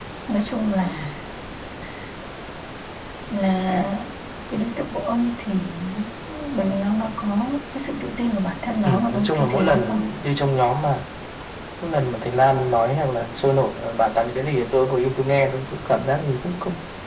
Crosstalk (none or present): present